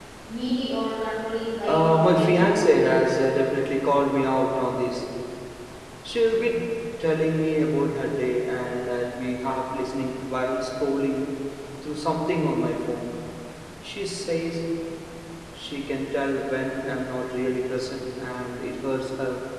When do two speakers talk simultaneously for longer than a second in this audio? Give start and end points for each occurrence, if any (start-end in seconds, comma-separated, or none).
1.6-2.9